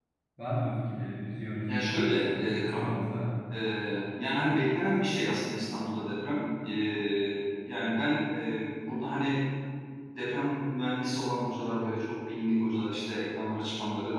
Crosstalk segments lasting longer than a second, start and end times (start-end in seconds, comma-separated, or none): 1.7-2.9